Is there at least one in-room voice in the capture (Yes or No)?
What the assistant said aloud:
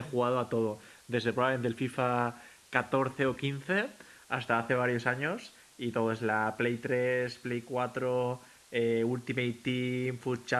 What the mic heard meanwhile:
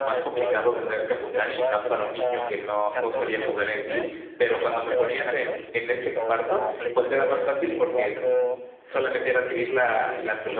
Yes